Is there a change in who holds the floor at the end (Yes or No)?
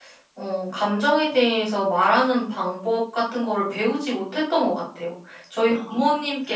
No